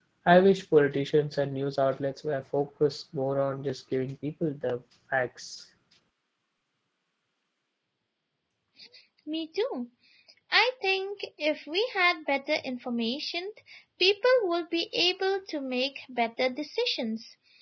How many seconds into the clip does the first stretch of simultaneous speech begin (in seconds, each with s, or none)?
none